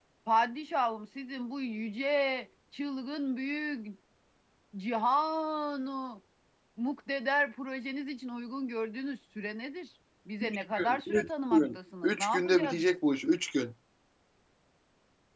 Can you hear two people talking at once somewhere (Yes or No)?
Yes